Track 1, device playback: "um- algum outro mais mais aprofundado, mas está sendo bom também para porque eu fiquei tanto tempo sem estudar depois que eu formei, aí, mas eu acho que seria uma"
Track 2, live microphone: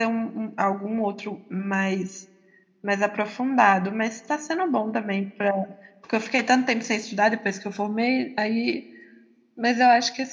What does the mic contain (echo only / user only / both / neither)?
echo only